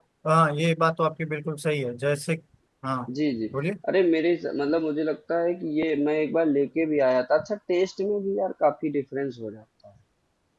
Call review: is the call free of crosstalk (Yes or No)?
Yes